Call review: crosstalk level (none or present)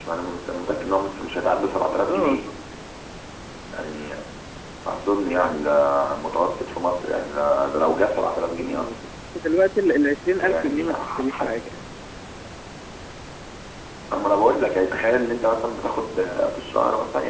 present